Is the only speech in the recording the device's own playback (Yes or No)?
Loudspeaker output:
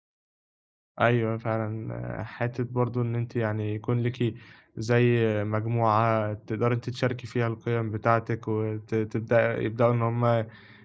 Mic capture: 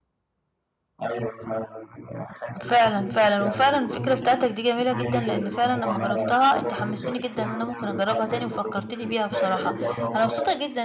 No